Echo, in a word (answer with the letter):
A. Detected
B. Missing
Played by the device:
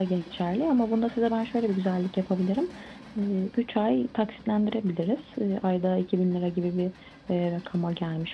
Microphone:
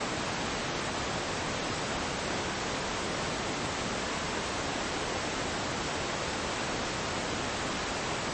B